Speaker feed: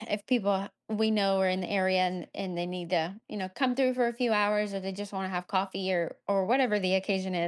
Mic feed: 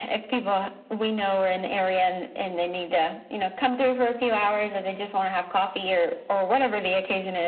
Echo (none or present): present